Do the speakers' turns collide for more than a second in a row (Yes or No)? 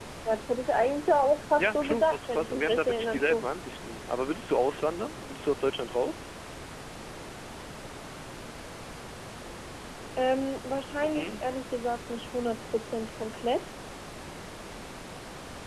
Yes